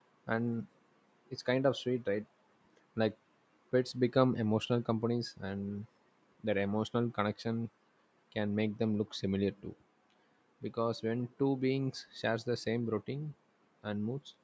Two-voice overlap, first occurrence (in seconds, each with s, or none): none